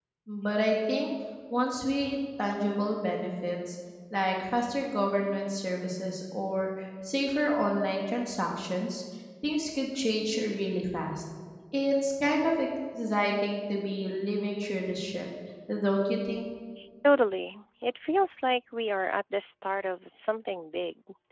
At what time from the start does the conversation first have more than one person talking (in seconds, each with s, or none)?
none